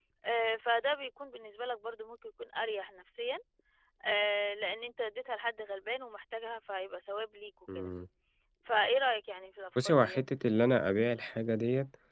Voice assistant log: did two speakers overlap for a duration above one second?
No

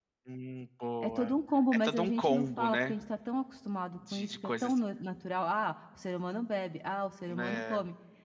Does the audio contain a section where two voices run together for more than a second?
Yes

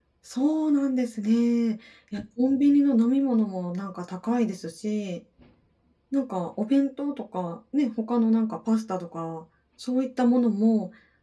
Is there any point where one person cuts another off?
No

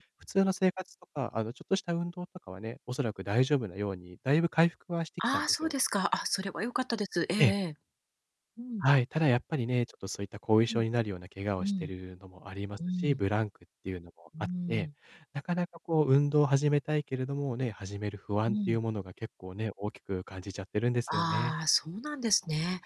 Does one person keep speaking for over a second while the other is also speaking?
No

